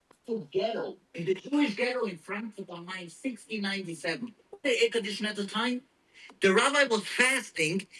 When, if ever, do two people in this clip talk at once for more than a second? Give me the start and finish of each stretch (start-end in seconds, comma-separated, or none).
none